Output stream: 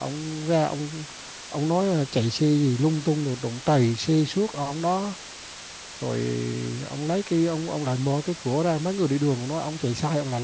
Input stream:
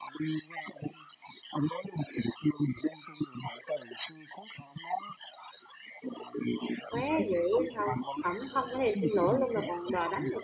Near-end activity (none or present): present